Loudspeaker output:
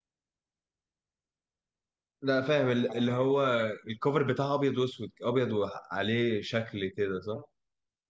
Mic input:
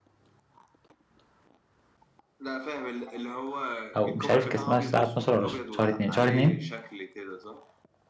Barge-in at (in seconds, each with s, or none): 4.0 s